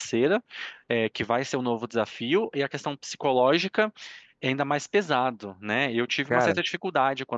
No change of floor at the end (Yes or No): Yes